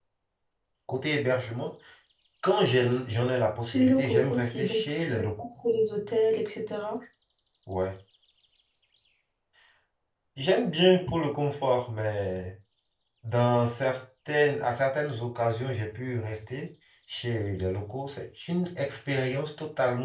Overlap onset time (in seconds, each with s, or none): 3.7 s